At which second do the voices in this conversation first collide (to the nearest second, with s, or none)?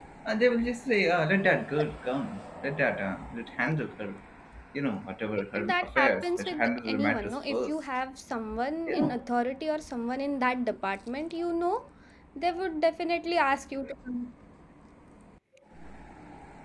6 s